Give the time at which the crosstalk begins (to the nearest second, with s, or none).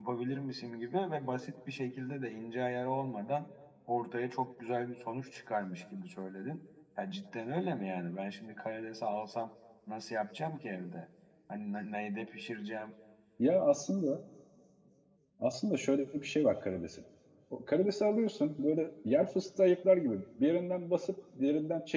none